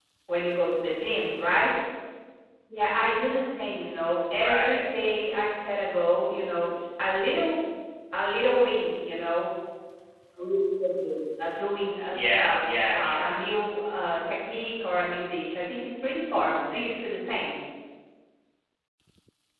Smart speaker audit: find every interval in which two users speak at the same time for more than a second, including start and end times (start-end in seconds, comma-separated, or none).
12.1-13.4